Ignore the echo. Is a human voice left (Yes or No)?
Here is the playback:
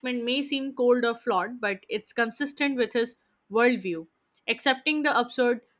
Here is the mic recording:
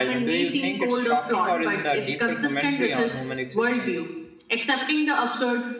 Yes